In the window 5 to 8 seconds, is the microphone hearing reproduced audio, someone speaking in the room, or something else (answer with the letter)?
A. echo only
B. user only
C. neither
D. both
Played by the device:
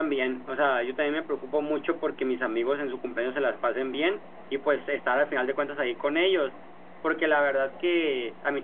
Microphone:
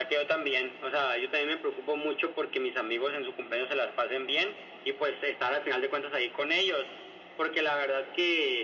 A